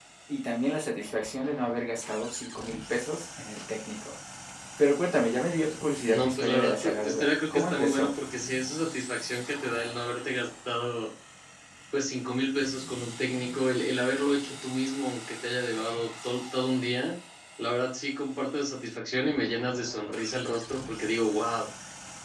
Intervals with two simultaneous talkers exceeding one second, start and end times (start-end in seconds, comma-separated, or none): 6.1-8.1